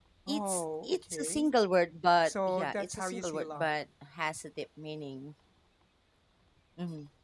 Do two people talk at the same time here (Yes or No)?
Yes